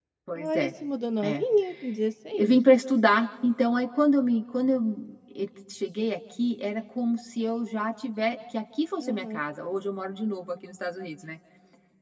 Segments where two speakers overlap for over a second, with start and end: none

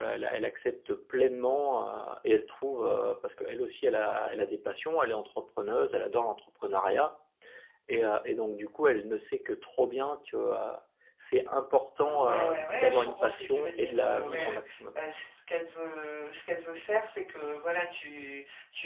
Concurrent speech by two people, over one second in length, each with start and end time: 12.0-14.6

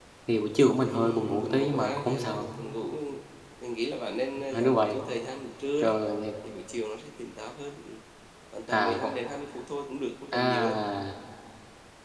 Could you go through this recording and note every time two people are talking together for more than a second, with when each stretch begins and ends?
0.9-2.5

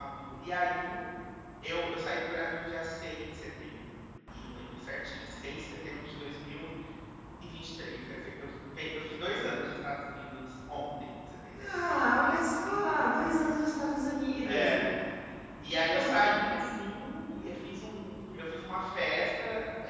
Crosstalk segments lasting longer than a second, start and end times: none

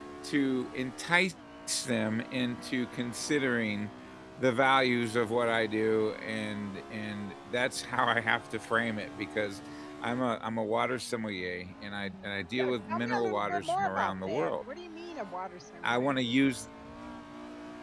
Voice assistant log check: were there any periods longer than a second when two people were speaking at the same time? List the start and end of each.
12.6-14.5

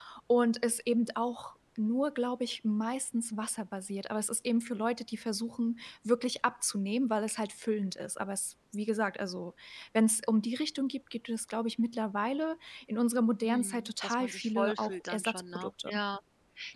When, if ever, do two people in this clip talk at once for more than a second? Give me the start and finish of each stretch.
13.4-15.9

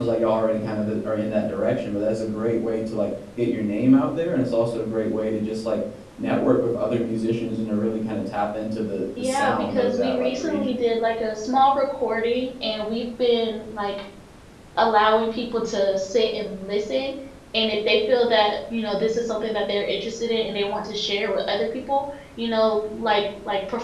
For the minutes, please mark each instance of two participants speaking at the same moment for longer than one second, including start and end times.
9.2-10.6

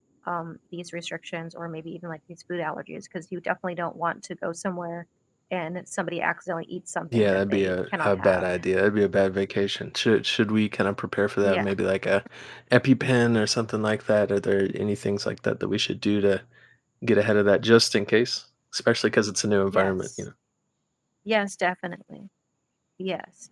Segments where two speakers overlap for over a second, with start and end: 7.1-8.4

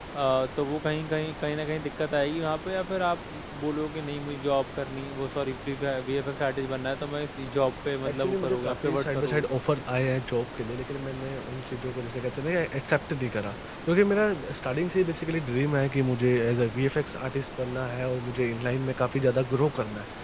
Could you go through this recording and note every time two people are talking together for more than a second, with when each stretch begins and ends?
8.1-9.4

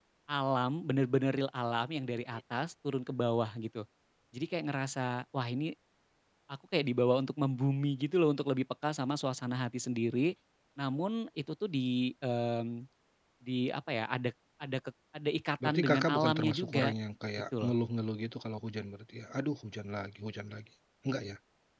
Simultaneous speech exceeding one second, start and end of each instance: 15.6-16.9

